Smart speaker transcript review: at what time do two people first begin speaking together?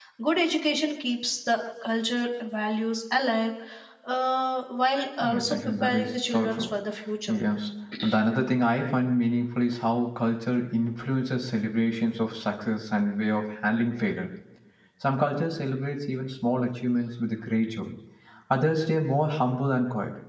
5 s

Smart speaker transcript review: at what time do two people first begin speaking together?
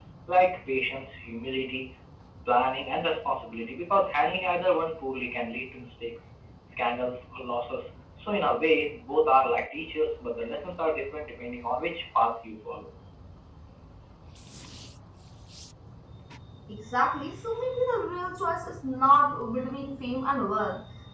none

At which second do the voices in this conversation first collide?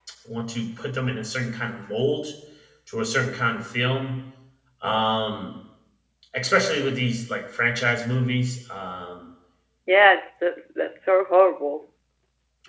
none

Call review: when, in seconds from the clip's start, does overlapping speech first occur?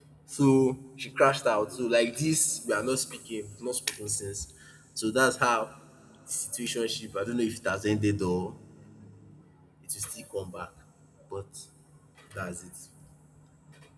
none

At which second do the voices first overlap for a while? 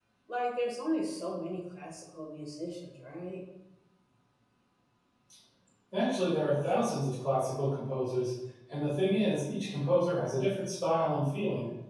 none

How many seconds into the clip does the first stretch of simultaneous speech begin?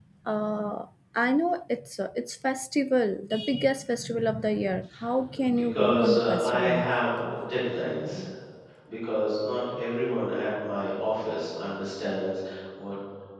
5 s

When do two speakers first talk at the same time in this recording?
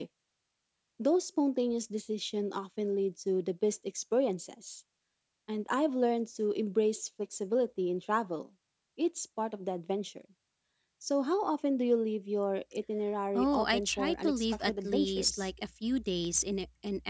13 s

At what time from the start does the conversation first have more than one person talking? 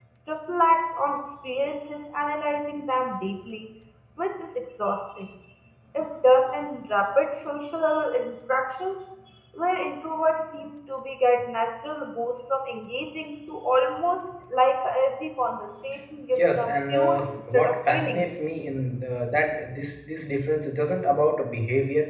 16 s

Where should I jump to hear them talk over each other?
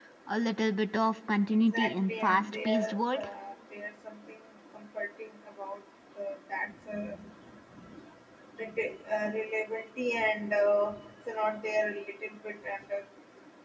2 s

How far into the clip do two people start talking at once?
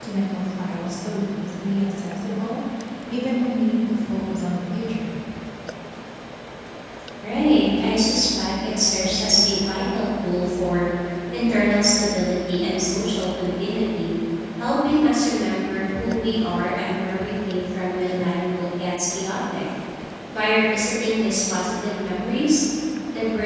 none

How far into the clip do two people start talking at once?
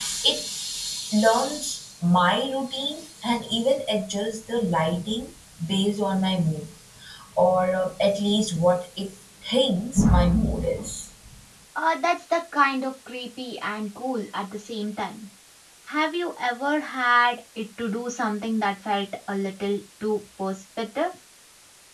none

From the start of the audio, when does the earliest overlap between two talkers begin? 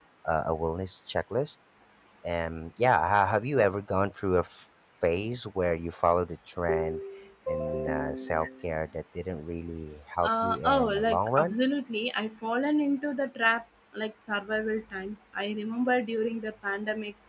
10 s

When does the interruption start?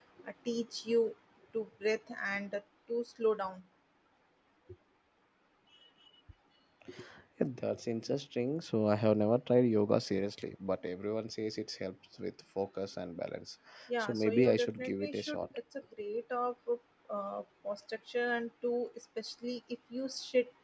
14 s

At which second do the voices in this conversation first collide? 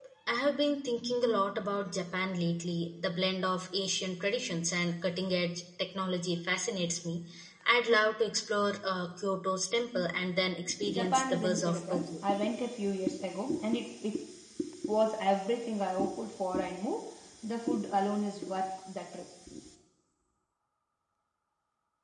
11 s

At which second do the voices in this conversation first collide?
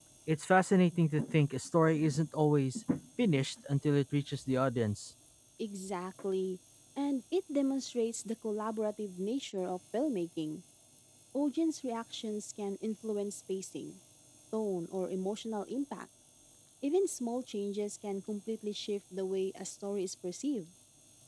none

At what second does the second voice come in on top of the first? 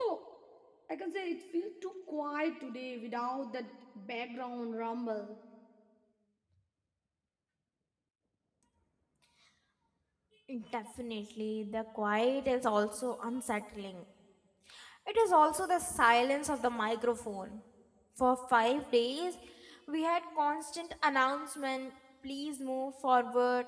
none

